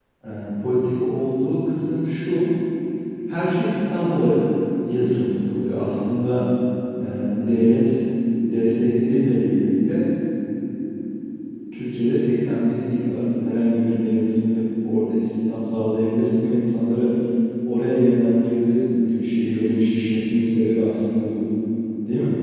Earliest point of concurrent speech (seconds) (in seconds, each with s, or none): none